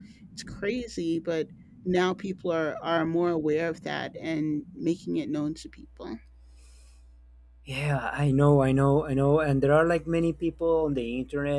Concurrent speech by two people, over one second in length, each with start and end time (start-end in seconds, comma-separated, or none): none